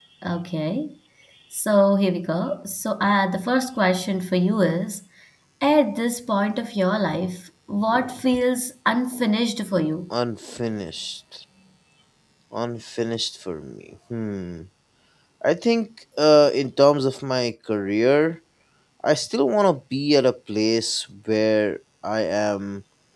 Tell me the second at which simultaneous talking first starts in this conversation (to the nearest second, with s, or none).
none